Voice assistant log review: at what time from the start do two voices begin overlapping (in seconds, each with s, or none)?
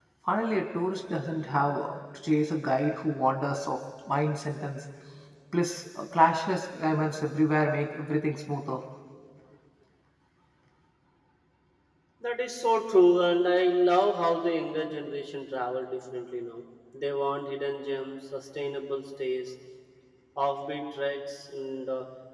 none